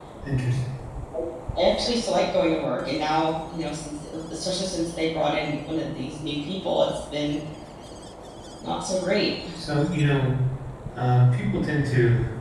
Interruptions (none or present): none